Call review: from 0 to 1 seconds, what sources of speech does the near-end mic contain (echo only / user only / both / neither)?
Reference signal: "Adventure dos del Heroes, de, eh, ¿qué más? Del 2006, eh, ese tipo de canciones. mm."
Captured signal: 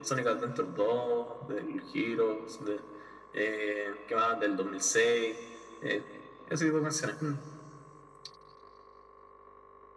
echo only